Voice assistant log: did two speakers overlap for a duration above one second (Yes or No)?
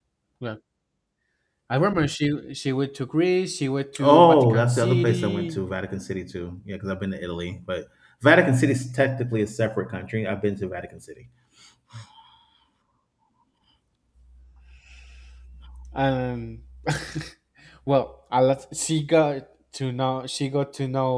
Yes